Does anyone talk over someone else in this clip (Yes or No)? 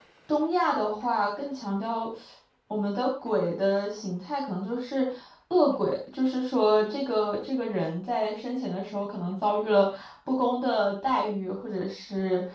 No